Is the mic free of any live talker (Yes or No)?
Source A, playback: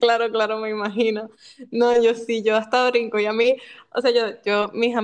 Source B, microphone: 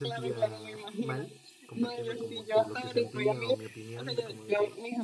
No